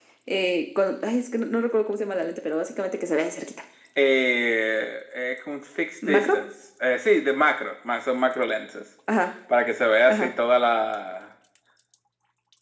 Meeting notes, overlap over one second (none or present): none